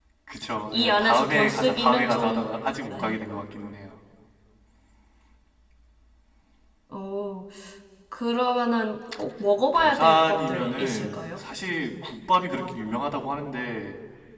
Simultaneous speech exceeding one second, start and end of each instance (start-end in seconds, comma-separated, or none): 0.7-2.5, 9.7-11.2